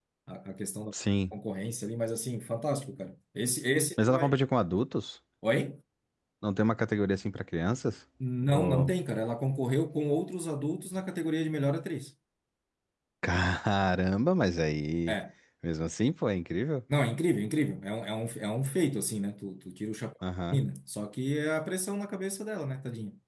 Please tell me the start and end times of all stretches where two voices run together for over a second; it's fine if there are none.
none

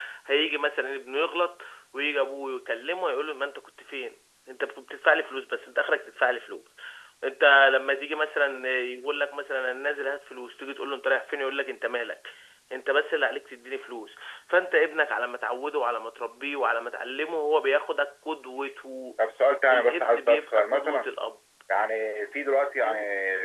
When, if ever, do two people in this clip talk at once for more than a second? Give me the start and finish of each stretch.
19.7-21.1

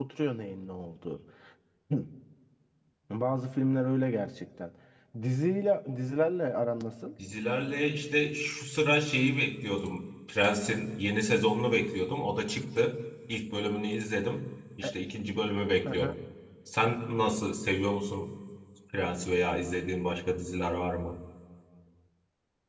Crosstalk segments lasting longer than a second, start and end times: none

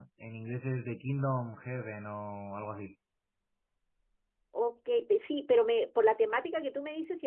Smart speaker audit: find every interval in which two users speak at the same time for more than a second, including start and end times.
none

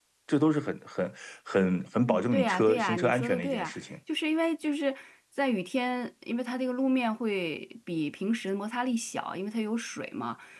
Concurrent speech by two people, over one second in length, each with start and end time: 1.9-3.9

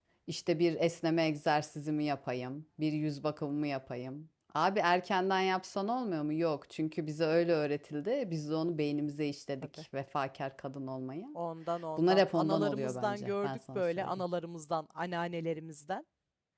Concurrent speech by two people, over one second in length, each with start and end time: 12.0-14.2

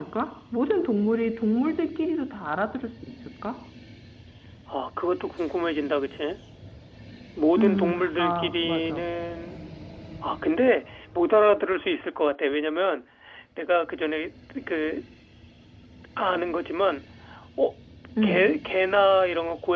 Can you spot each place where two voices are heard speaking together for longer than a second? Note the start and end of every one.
7.6-9.1

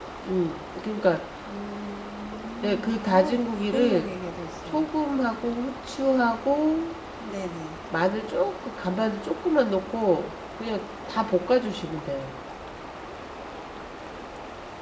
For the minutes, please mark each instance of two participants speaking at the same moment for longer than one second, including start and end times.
2.6-4.1

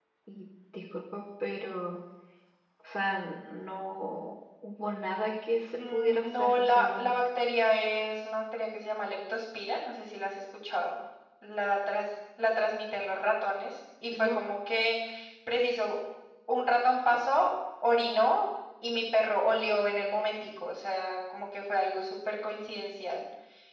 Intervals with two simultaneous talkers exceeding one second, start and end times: 5.8-7.1

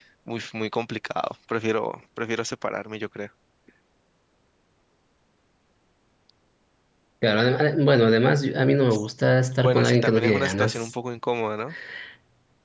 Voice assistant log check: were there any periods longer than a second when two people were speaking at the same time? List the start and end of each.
9.6-10.9

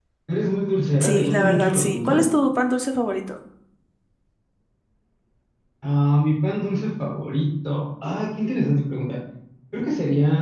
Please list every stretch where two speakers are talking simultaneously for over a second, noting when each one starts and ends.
1.0-2.2

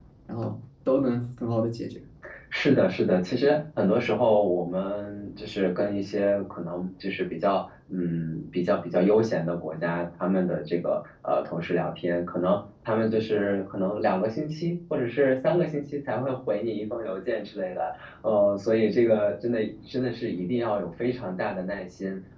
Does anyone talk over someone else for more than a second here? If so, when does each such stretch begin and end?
none

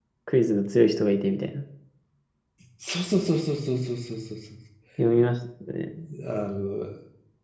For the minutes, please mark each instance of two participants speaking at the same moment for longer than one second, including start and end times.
none

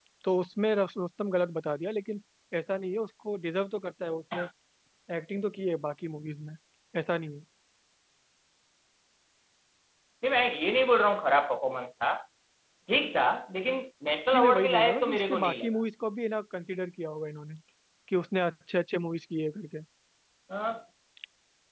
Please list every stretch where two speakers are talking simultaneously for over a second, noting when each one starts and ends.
14.3-15.7

